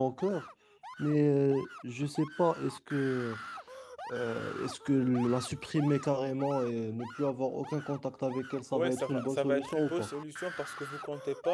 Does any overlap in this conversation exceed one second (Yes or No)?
Yes